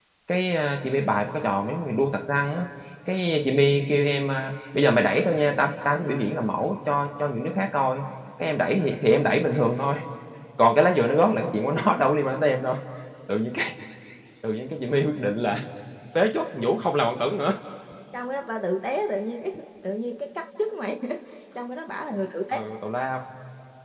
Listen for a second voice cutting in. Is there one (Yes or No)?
No